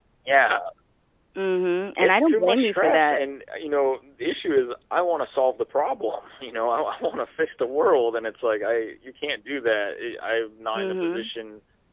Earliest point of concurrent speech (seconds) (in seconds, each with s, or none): 2.0 s